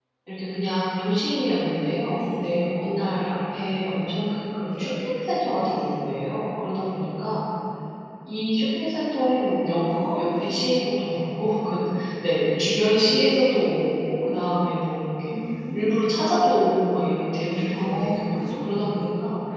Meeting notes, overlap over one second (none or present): present